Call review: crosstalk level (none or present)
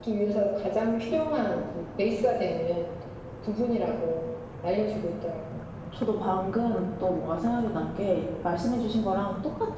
none